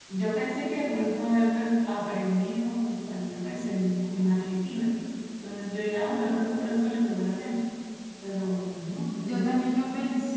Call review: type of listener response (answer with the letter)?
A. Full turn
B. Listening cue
A